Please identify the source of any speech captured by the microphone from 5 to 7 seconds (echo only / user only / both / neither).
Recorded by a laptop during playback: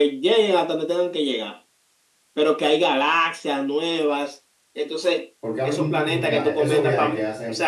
both